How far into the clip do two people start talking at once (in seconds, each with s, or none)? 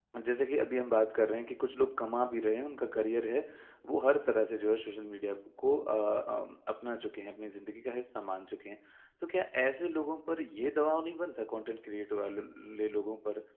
none